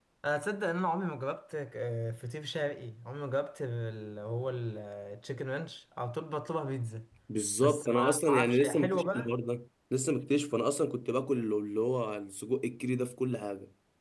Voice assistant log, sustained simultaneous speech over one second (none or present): present